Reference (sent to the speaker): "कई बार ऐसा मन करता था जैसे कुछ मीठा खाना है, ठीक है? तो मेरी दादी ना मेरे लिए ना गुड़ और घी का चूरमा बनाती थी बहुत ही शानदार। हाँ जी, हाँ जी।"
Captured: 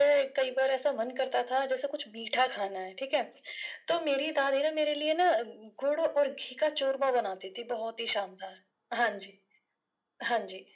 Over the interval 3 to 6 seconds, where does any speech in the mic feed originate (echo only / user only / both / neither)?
echo only